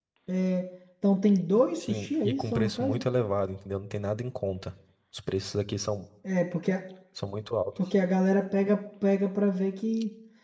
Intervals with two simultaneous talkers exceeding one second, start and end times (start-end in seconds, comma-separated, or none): 1.8-3.0